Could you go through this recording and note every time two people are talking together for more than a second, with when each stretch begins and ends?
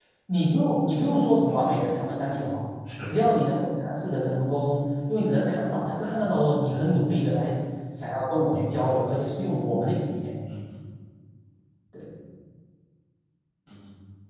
none

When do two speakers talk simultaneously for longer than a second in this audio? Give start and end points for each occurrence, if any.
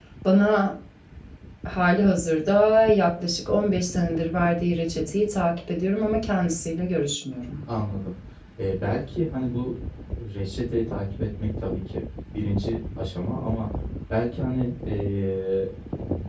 none

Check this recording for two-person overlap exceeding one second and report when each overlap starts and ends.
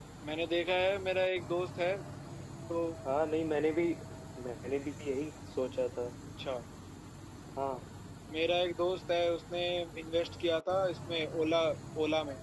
none

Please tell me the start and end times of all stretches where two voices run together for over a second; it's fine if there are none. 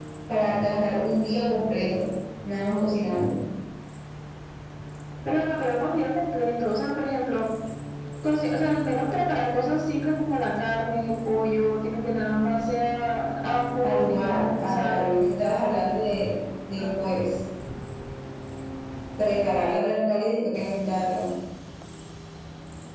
13.8-15.2

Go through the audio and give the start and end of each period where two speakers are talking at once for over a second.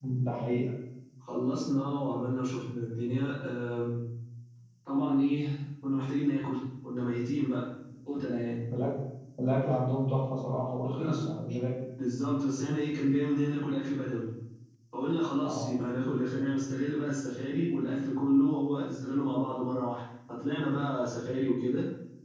none

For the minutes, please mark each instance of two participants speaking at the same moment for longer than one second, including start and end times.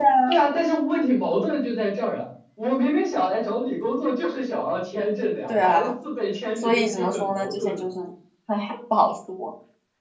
6.6-7.8

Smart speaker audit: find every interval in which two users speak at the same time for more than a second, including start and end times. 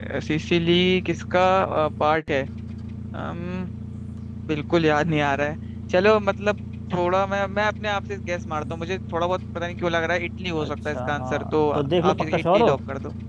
10.6-12.7

